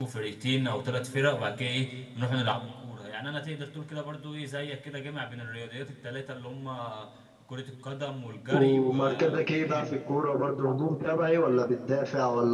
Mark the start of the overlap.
8.5 s

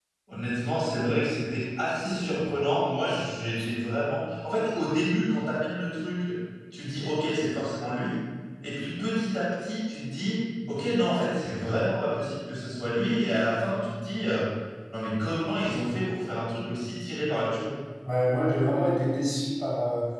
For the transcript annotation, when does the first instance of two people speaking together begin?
none

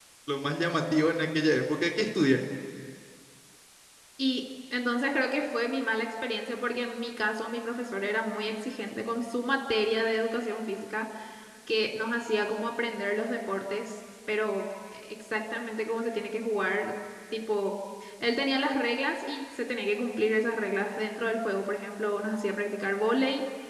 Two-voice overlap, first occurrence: none

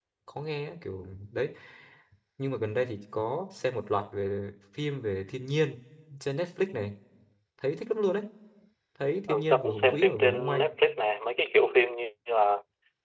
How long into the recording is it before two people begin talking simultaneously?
9.3 s

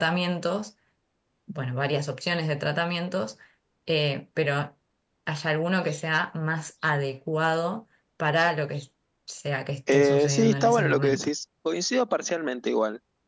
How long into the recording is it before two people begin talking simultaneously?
9.9 s

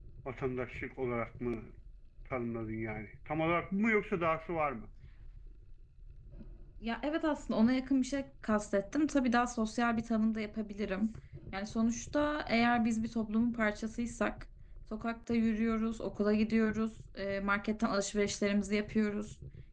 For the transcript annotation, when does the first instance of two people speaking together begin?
none

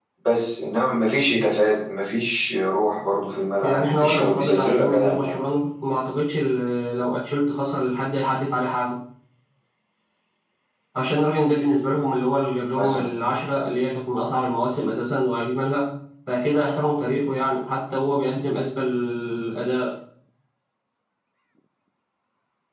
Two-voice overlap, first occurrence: 3.6 s

